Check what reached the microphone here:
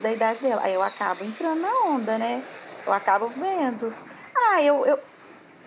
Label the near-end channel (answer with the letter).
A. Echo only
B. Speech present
B